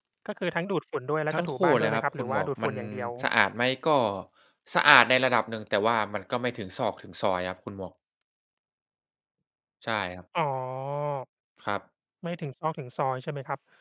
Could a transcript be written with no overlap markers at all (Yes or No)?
No